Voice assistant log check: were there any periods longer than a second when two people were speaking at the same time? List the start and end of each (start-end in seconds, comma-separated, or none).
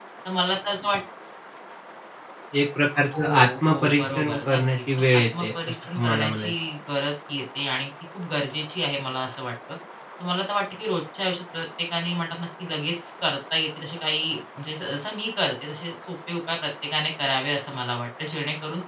3.2-6.5